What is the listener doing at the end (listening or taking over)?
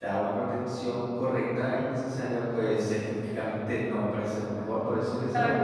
listening